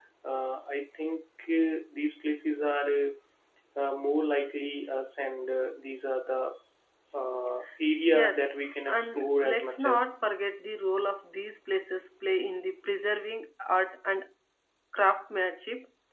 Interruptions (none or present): present